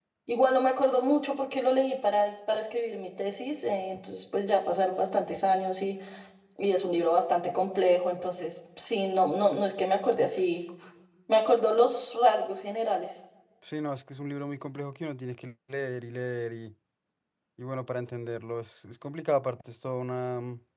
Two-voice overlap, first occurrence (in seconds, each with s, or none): none